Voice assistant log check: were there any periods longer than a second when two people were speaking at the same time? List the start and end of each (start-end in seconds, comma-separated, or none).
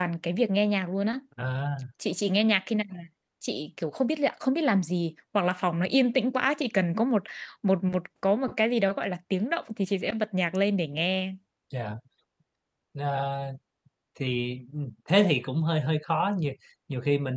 none